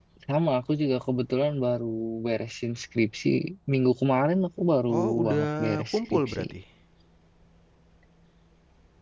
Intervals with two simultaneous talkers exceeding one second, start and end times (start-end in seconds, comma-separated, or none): 5.0-6.4